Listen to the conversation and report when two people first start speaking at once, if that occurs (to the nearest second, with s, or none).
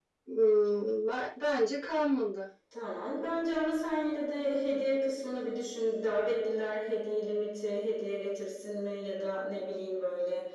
none